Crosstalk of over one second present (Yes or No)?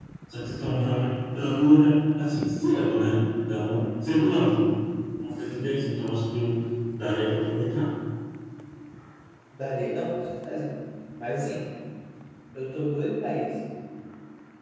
No